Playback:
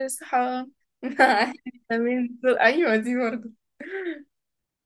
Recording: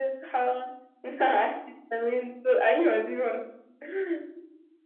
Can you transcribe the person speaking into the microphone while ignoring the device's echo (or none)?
none